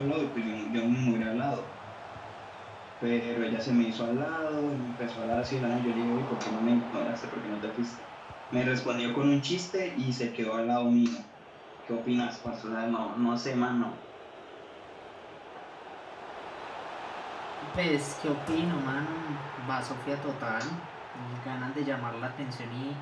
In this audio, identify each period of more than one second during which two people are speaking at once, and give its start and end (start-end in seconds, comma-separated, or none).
none